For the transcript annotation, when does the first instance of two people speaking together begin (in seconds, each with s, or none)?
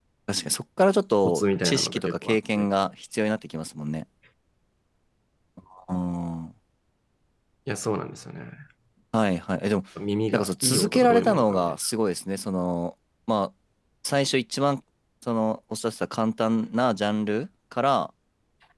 1.2 s